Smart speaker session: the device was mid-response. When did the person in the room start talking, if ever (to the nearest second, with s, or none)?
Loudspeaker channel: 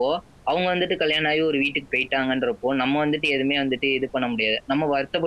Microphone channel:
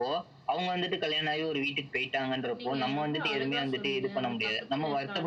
3 s